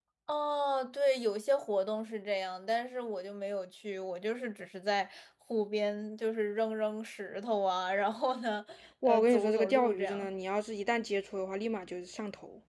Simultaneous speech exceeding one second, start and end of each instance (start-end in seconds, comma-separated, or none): 9.1-10.3